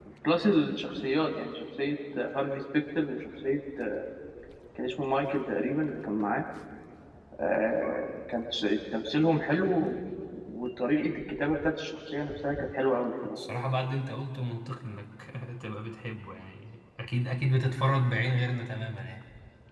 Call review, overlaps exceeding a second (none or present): none